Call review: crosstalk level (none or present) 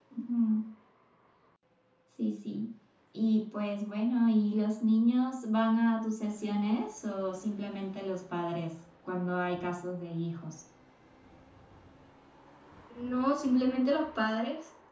none